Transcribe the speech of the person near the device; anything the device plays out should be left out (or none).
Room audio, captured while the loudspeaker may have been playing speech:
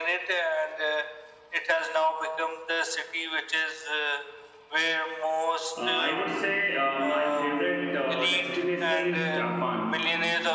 uh, I would say uh, my favorite uh, destination is Japan,